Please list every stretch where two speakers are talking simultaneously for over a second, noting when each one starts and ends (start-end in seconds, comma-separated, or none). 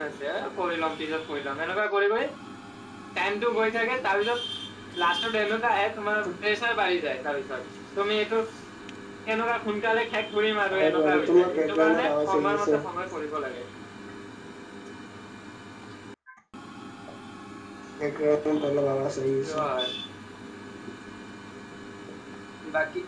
10.7-12.8